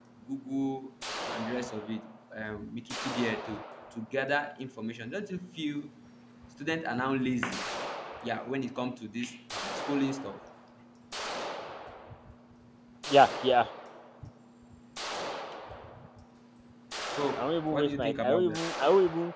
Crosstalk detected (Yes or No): Yes